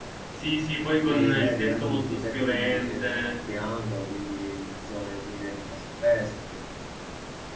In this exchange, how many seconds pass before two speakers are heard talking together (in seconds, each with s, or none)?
1.0 s